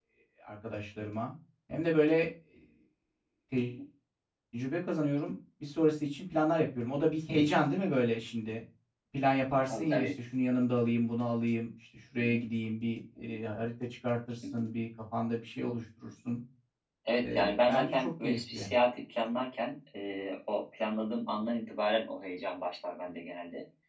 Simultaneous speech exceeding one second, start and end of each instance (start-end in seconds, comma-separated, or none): 17.2-18.7